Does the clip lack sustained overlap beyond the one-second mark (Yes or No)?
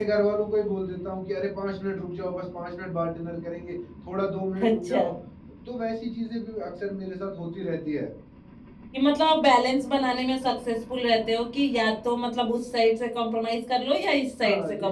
Yes